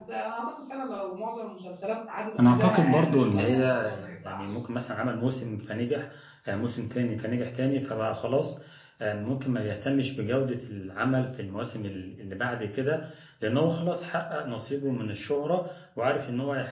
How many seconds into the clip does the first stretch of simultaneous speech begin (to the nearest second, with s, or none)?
2 s